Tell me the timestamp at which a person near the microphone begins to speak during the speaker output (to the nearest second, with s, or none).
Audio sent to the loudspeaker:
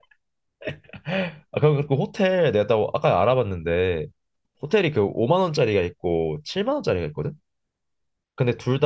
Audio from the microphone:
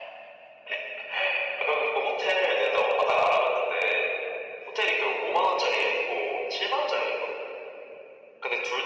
none